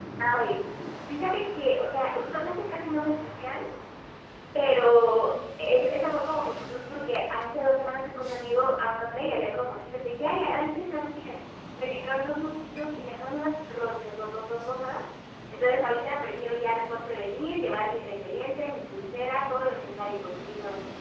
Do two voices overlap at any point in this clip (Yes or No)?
No